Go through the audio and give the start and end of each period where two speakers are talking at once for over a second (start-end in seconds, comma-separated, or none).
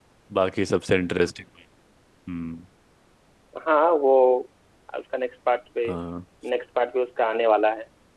none